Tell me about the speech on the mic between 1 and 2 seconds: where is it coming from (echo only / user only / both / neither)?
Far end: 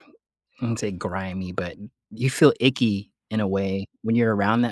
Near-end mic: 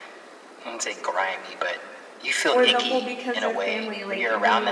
echo only